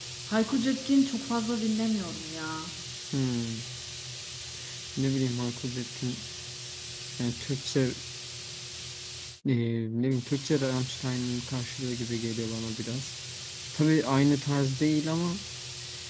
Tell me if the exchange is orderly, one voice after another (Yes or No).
Yes